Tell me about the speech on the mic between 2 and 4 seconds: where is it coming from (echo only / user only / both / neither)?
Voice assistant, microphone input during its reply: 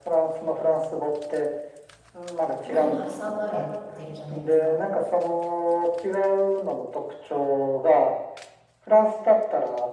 both